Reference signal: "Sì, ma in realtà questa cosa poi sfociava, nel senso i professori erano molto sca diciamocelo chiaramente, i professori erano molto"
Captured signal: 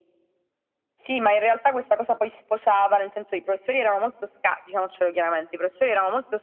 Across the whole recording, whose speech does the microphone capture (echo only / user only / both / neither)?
echo only